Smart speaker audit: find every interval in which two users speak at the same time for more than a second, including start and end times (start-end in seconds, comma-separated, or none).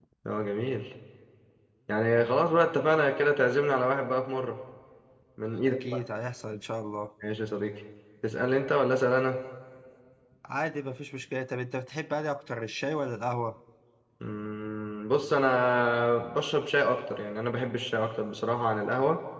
none